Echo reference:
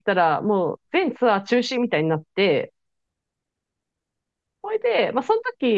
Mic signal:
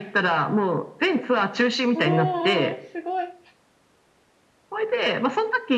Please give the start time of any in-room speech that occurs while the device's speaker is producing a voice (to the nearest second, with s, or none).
2 s